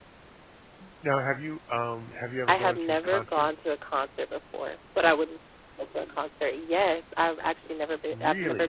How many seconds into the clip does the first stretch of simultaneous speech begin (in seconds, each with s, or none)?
2.5 s